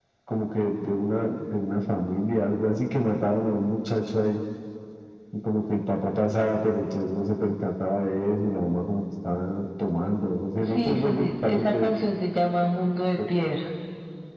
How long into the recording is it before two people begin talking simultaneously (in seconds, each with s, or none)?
10.7 s